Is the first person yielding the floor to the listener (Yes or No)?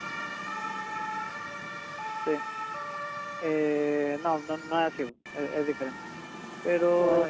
No